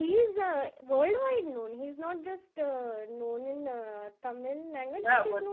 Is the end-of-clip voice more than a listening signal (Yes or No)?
Yes